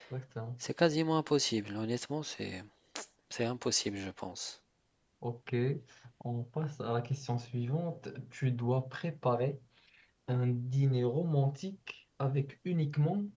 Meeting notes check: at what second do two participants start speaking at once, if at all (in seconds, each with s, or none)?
none